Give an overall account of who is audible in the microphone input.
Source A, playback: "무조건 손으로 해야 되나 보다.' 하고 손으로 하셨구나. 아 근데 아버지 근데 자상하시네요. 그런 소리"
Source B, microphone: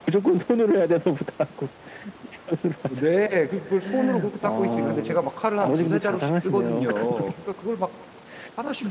both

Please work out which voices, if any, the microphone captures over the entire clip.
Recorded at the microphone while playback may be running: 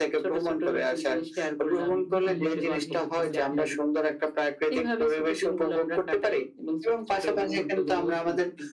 both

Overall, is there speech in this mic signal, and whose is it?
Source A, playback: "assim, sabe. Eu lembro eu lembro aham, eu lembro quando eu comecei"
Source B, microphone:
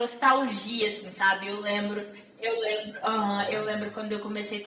both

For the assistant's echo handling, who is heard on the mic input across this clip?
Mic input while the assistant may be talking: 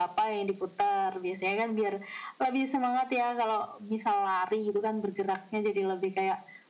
echo only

